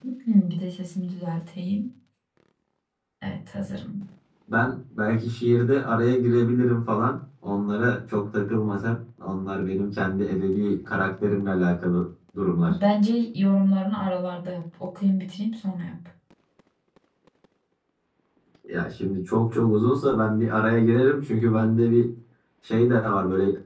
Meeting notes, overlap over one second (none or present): none